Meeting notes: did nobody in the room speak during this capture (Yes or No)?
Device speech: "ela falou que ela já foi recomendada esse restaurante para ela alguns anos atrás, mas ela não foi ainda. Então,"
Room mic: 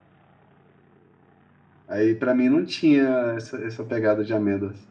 No